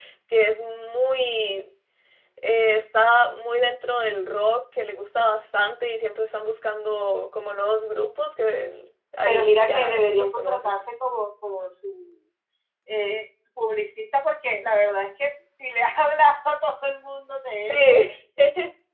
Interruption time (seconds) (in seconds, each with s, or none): 9.2 s